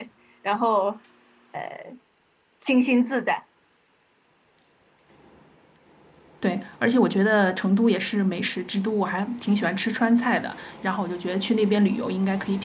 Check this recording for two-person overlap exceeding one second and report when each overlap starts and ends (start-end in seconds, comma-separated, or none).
none